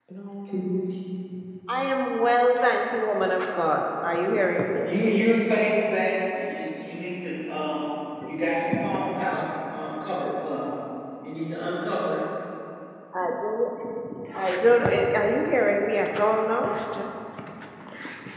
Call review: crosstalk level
none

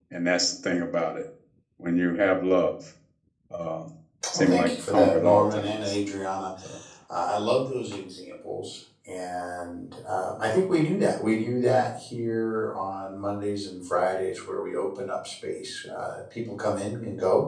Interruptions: present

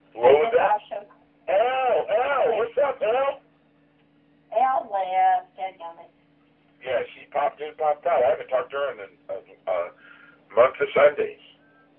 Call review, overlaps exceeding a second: none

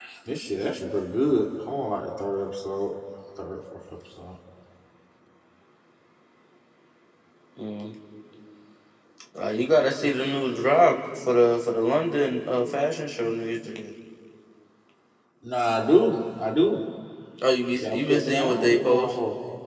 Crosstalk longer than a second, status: present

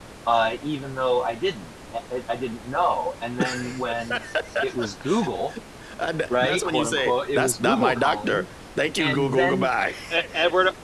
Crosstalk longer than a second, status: present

